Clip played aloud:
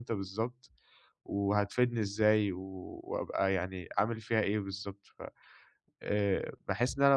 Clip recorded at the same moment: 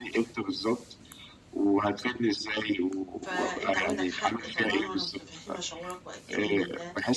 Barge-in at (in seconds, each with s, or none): 3.2 s